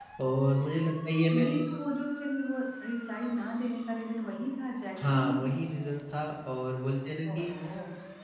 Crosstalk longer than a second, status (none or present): none